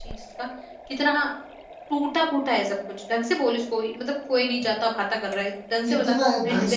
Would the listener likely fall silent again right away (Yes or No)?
No